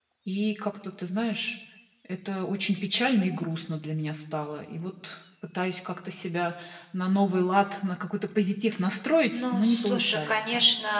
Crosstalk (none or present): present